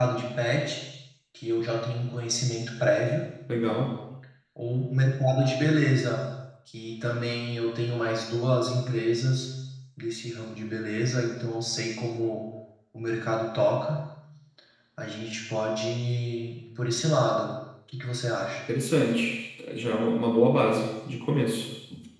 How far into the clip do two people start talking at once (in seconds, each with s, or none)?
none